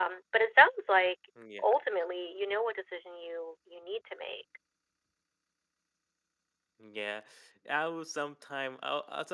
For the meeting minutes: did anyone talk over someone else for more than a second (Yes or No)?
No